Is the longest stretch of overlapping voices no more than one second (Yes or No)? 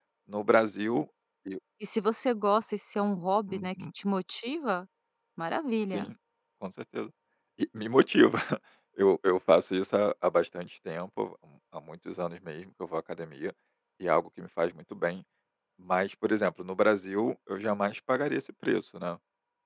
Yes